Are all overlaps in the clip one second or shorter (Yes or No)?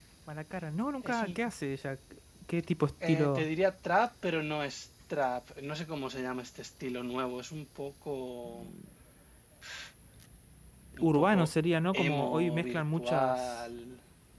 No